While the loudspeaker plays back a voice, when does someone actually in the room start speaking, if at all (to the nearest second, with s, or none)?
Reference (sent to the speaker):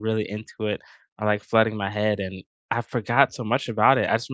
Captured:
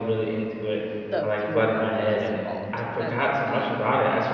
1 s